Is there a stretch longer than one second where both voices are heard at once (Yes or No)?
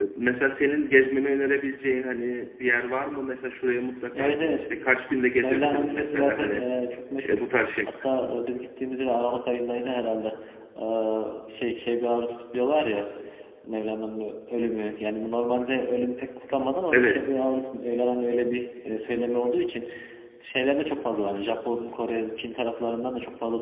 Yes